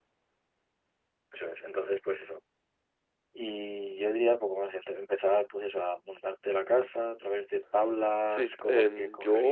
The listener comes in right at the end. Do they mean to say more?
Yes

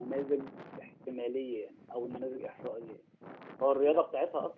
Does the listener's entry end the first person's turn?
No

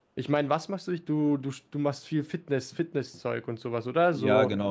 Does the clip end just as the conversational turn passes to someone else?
Yes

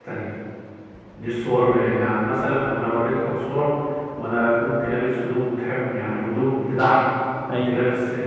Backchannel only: Yes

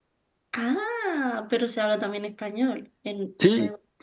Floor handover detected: Yes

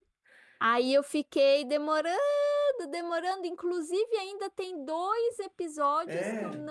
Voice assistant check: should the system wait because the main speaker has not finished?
Yes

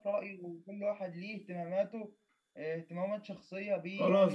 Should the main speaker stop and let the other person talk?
Yes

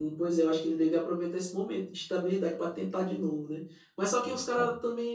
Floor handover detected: No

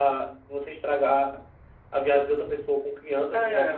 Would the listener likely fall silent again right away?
No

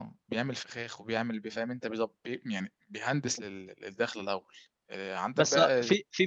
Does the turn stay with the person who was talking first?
No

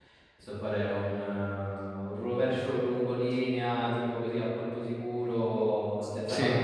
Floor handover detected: No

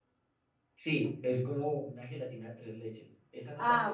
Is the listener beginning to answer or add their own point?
Yes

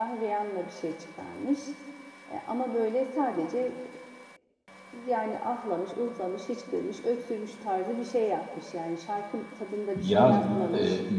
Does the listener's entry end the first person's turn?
Yes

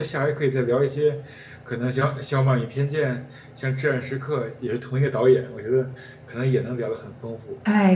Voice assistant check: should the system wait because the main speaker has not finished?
No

